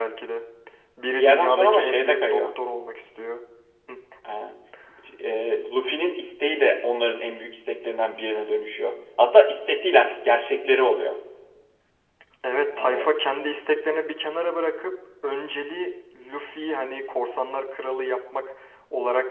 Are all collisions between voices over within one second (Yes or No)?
No